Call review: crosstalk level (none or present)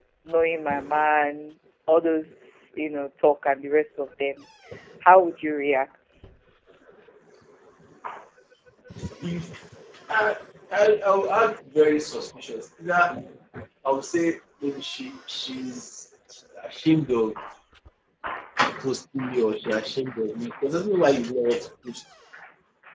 none